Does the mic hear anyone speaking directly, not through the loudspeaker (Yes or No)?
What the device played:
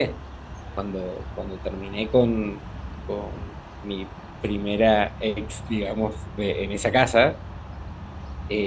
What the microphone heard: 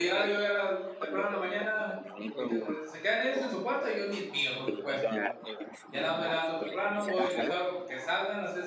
Yes